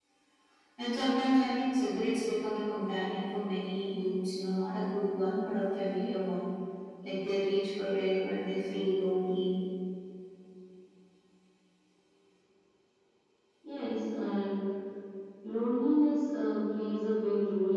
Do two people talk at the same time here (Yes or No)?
No